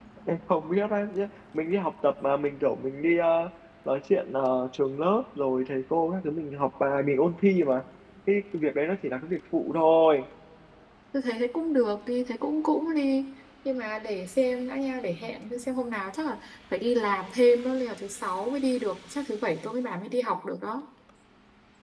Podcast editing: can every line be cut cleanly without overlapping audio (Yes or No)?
Yes